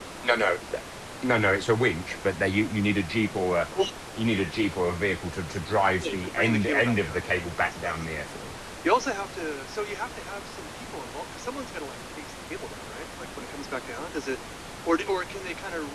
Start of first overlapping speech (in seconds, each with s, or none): 6.0 s